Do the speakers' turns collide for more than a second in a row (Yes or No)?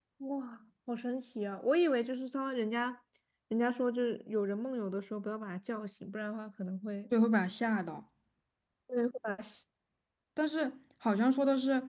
No